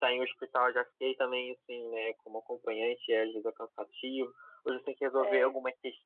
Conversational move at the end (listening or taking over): listening